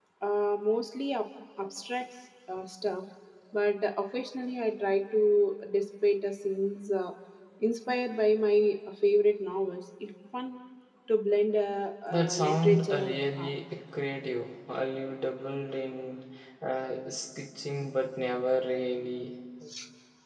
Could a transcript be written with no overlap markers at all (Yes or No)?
No